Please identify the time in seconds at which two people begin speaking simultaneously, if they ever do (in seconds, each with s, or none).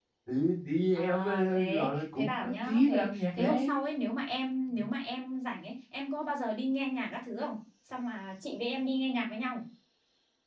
1.0 s